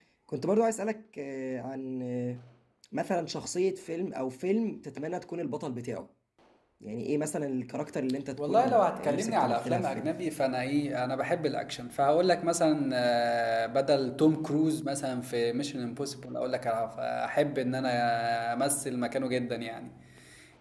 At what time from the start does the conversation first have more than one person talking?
8.4 s

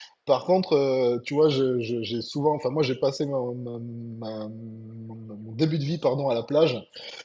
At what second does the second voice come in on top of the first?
none

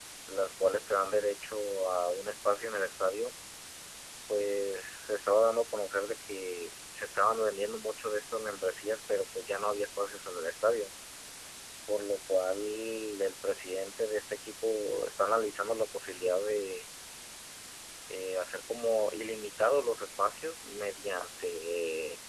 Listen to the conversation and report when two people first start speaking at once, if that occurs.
none

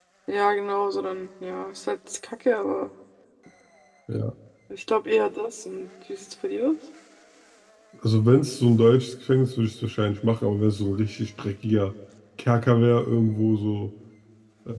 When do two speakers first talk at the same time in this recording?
none

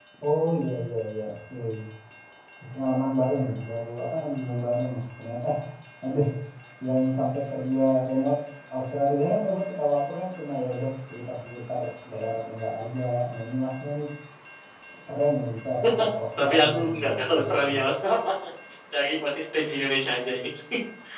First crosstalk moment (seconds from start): 16.4 s

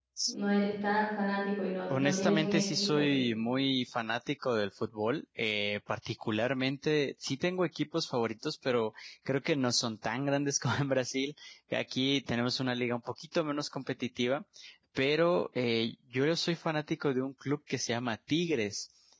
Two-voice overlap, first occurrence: 1.9 s

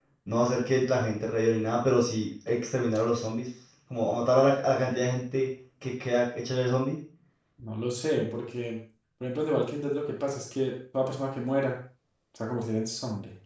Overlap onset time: none

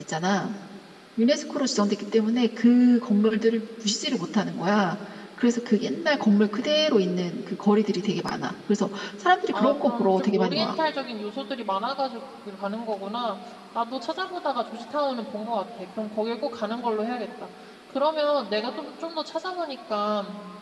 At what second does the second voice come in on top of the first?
9.5 s

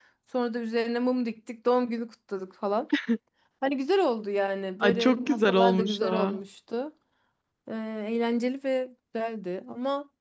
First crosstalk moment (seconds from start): 4.8 s

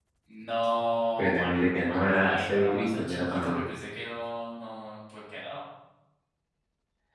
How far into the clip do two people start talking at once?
1.2 s

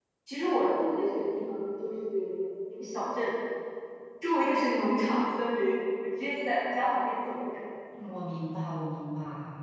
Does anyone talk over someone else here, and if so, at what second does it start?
none

